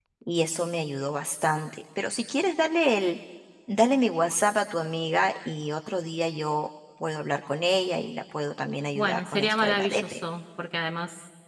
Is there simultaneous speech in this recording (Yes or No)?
Yes